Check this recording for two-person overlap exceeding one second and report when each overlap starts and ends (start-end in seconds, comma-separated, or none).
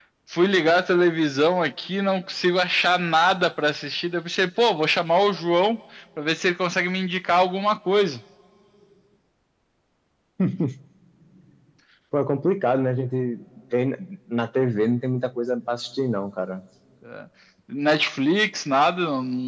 none